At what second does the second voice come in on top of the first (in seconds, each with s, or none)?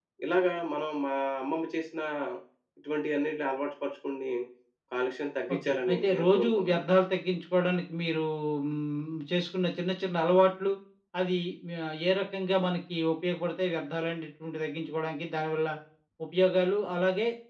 5.5 s